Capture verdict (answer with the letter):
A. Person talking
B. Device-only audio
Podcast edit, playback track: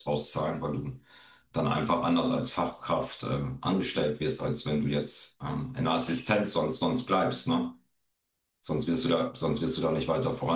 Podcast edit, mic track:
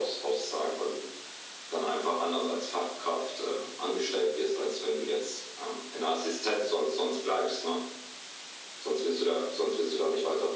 B